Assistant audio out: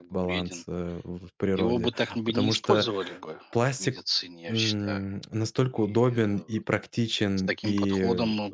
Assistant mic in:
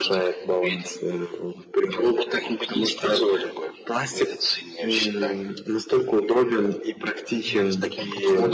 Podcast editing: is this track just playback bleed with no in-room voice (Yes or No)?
No